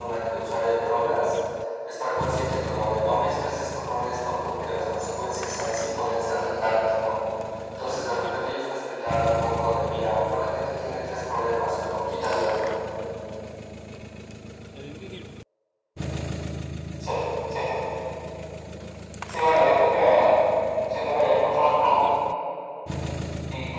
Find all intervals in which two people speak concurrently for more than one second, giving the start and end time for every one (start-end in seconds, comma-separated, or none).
none